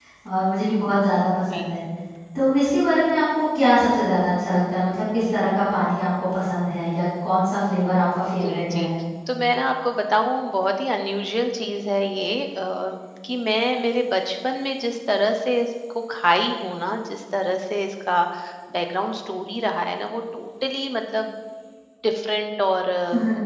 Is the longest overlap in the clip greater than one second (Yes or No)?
No